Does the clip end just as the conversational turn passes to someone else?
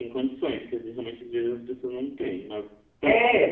Yes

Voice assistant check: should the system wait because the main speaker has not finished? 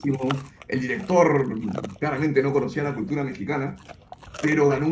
Yes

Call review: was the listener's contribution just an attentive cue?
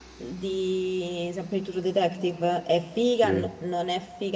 Yes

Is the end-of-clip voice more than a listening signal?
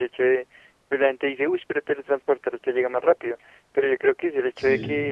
No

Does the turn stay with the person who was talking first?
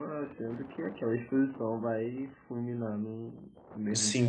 No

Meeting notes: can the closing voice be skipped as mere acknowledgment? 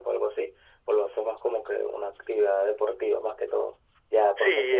No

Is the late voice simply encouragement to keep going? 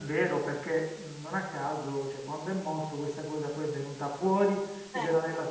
Yes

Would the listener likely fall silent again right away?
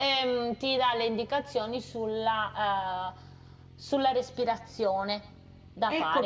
No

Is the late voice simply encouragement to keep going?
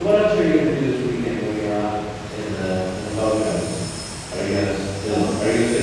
Yes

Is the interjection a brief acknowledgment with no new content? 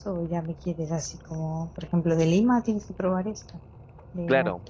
No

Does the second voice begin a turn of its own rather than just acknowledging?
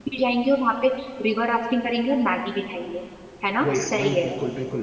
Yes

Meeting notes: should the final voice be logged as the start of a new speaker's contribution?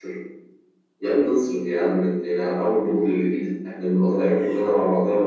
No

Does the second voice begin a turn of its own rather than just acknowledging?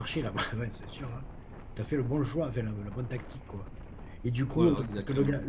No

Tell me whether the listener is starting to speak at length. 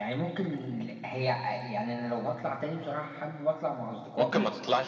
Yes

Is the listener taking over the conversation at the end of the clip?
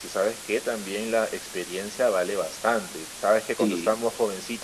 No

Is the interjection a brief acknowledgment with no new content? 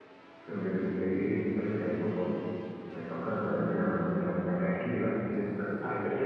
No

